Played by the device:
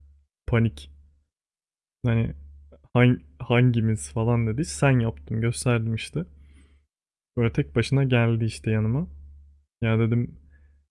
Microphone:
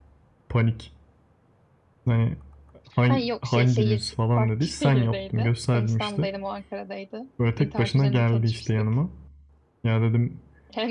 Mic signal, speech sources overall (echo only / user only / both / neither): both